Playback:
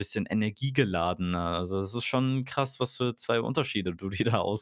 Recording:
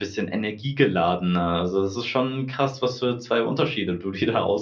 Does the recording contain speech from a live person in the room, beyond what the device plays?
No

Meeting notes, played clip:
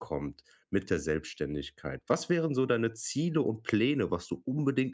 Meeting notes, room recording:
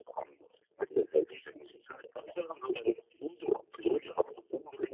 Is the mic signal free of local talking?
Yes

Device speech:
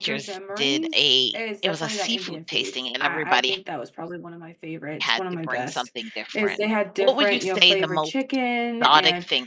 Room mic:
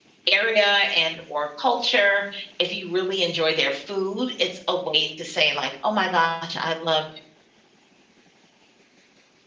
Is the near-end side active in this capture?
Yes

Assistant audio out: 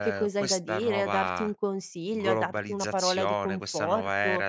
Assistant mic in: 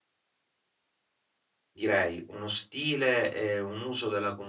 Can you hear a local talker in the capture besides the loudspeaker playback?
Yes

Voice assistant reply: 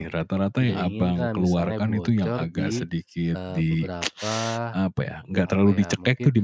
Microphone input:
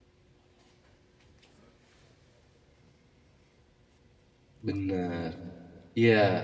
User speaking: Yes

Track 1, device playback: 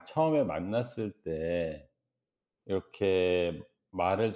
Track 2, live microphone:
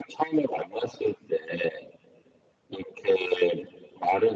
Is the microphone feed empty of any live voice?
Yes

